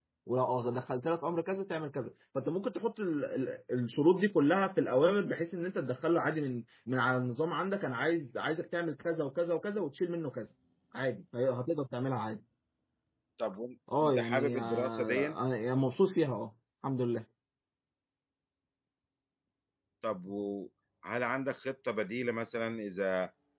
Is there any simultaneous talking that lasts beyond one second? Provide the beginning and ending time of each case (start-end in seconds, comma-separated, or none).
14.0-15.3